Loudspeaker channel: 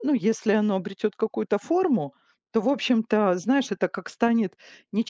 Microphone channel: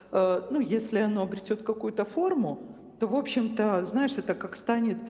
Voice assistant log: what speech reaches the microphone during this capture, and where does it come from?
echo only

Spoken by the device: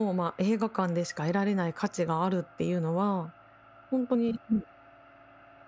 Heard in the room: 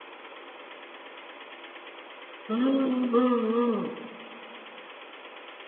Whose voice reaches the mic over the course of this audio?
user only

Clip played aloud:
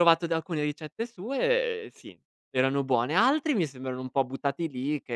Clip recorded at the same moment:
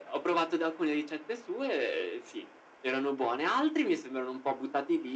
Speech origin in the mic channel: echo only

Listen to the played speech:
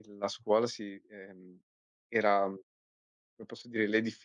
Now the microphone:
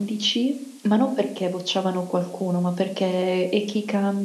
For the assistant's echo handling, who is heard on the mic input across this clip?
user only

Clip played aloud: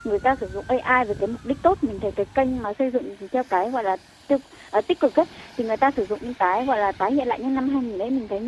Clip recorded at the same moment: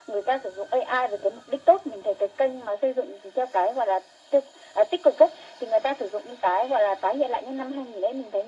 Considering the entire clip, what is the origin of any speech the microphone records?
echo only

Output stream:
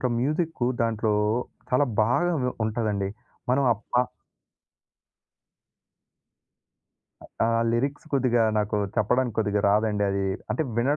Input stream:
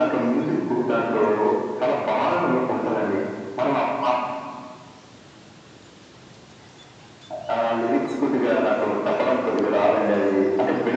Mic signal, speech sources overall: echo only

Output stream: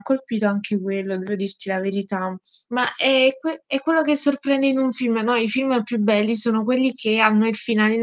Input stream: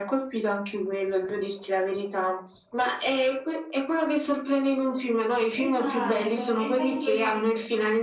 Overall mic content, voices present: both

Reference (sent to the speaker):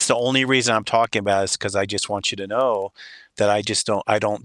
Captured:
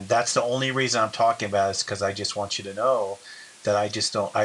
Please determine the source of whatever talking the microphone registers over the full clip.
echo only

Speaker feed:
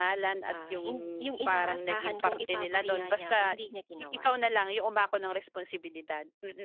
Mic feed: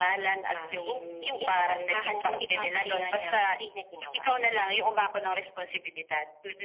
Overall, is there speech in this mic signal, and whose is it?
echo only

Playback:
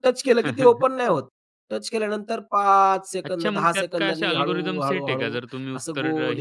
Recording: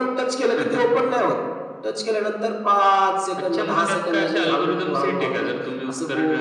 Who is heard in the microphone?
echo only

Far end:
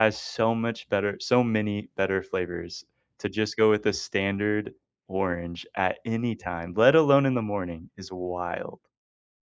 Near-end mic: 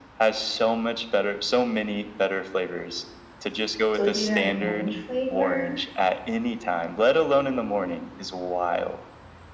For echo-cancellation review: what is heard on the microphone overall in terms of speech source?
both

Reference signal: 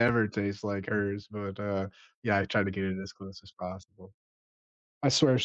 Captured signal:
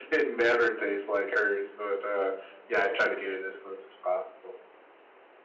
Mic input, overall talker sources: echo only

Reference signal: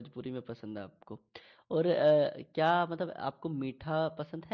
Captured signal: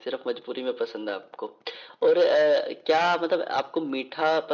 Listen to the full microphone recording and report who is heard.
echo only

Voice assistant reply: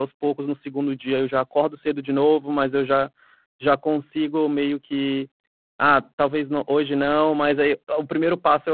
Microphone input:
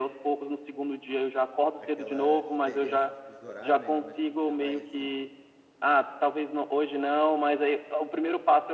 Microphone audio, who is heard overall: both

